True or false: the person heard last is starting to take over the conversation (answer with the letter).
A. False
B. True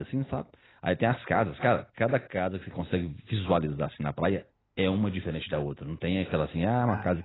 A